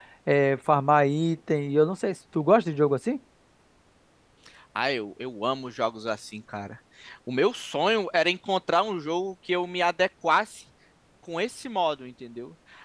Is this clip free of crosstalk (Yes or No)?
Yes